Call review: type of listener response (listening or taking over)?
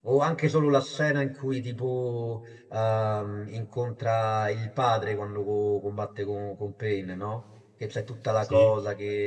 listening